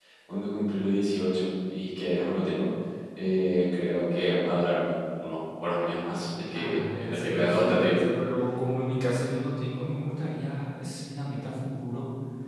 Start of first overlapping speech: 7 s

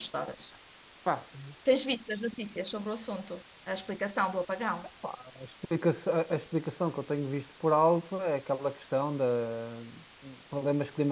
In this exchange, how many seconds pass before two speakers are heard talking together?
none

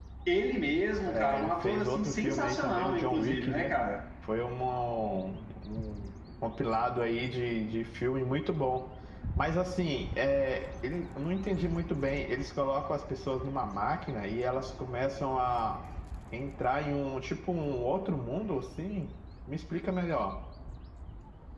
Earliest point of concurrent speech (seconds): 1 s

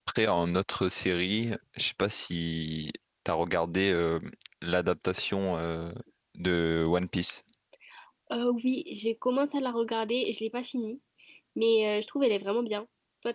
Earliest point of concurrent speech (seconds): none

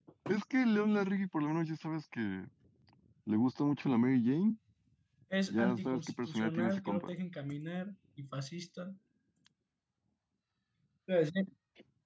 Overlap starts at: 5 s

